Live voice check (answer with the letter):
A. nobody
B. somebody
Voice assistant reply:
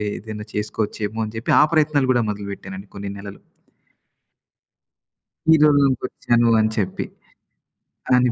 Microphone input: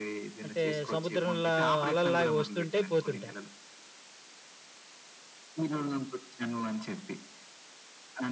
B